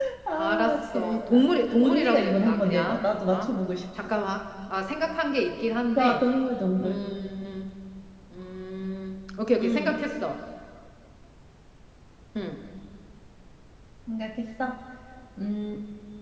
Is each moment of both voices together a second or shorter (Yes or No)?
No